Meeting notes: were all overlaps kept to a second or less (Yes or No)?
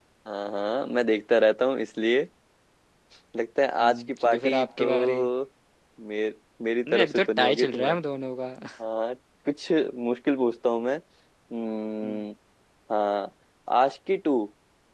No